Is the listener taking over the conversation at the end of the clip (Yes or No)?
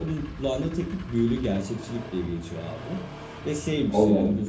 No